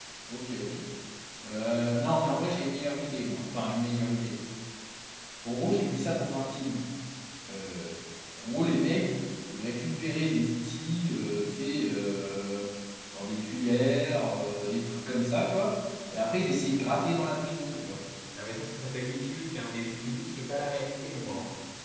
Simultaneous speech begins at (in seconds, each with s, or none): none